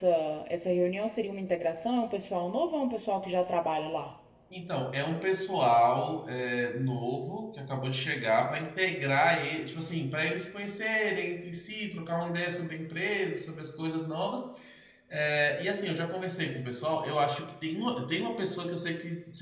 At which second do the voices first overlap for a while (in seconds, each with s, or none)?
none